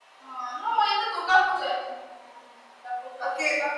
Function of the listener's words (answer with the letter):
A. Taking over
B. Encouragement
A